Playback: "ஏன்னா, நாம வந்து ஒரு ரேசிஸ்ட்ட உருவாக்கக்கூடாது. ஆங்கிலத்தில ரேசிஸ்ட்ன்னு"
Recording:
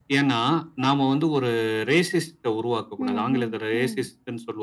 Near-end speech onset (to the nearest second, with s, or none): 3 s